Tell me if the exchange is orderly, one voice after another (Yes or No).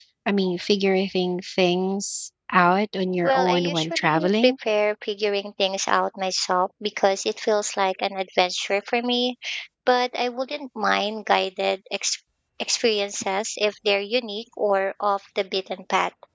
No